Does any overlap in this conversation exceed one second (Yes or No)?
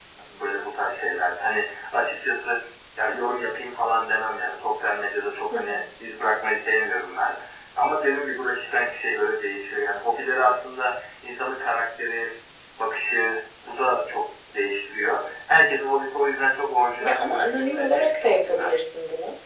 Yes